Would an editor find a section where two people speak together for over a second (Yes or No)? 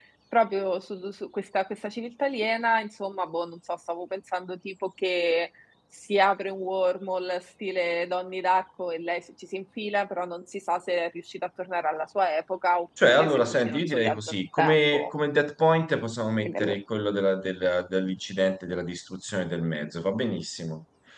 Yes